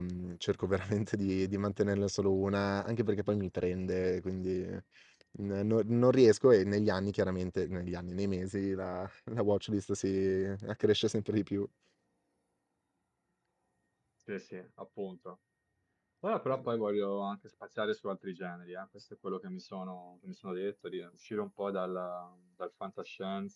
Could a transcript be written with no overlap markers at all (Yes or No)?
Yes